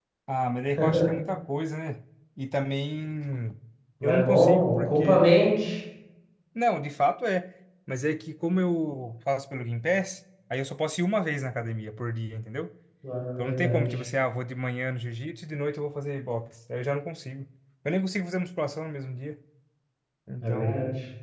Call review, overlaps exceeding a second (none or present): present